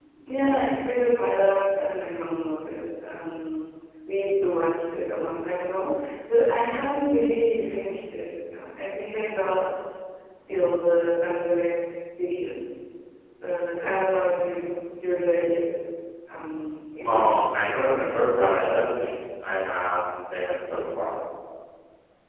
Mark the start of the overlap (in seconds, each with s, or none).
17.1 s